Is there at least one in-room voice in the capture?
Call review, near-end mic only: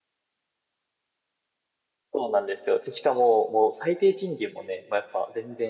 Yes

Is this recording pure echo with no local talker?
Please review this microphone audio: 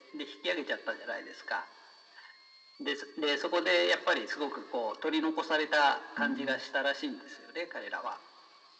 No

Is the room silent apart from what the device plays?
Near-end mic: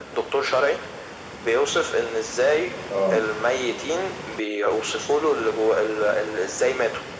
No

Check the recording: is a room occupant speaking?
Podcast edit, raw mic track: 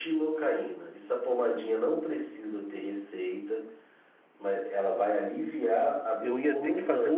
Yes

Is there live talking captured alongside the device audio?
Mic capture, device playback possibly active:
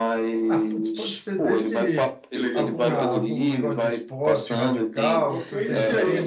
Yes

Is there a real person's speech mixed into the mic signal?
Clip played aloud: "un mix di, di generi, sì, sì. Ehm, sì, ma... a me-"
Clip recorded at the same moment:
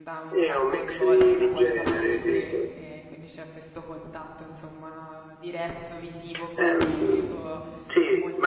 Yes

